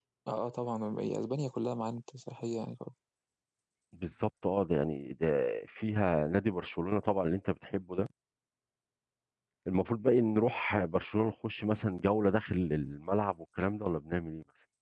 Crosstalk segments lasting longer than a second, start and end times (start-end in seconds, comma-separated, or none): none